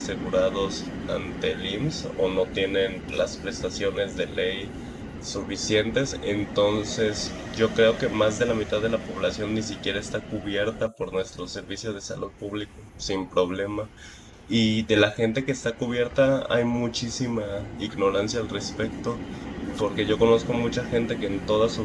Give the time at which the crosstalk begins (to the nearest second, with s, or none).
none